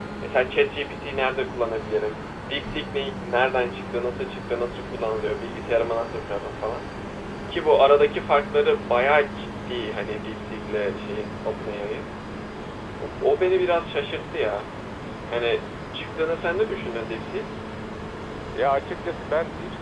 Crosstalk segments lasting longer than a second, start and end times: none

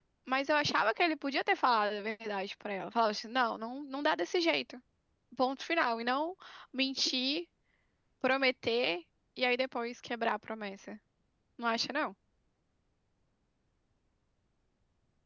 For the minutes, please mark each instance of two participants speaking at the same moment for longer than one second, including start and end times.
none

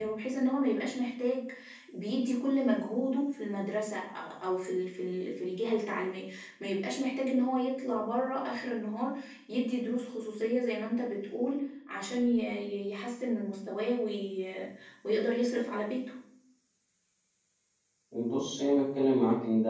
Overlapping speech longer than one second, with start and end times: none

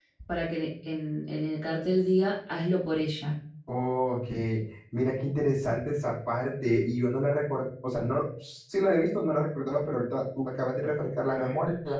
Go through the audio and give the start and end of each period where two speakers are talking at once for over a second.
none

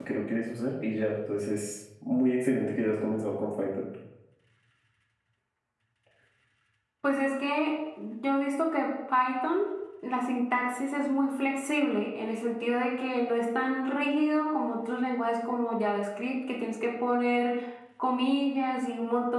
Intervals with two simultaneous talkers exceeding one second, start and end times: none

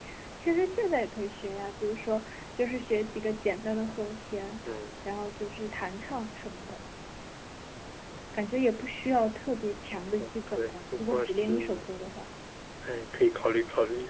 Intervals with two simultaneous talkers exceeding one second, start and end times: 10.2-11.8

